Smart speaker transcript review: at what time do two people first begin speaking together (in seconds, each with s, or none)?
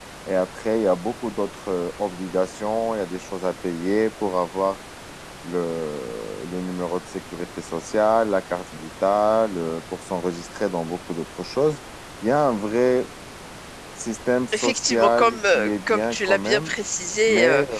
14.5 s